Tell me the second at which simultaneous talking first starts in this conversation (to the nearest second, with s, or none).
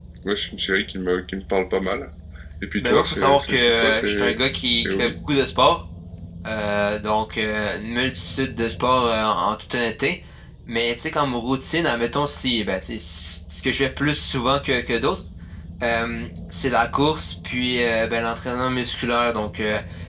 3 s